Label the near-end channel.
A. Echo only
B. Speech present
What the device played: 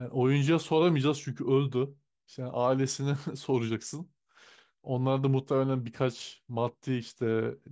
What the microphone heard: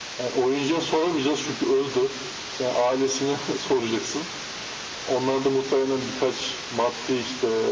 A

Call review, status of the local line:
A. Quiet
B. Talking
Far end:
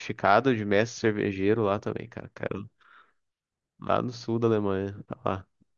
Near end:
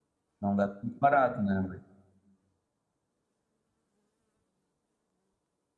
B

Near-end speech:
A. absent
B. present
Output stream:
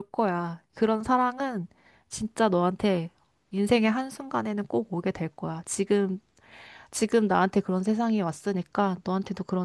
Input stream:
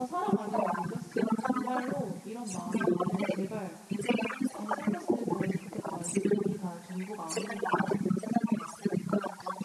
B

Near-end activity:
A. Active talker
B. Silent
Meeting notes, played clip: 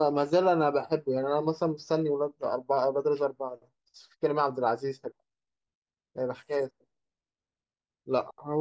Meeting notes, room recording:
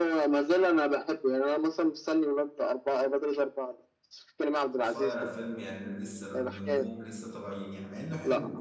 A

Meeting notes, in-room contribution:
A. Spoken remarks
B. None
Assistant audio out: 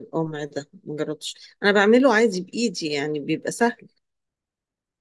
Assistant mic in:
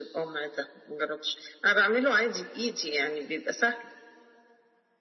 B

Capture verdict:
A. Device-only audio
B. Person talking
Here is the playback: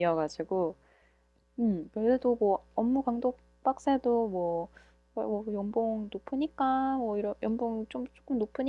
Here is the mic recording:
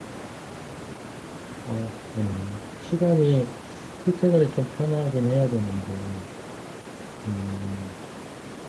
B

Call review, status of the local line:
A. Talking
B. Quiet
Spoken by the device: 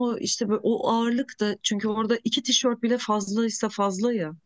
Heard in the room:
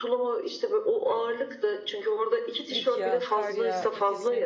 A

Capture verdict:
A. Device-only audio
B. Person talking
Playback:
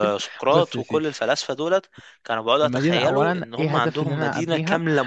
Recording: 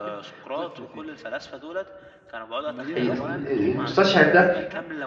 B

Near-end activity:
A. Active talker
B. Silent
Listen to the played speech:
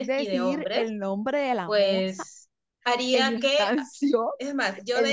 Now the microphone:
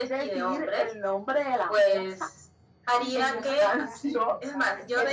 A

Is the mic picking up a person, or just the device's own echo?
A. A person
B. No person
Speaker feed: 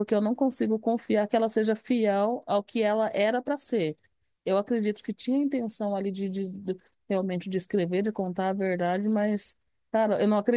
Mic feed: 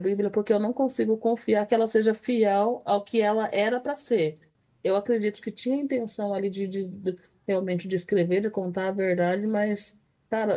B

